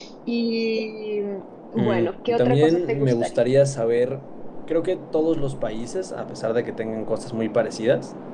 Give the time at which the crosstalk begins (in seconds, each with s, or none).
1.8 s